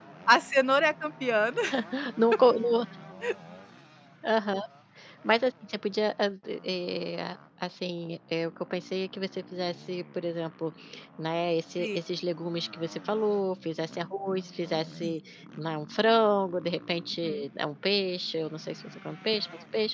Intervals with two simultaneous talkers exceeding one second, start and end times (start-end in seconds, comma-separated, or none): none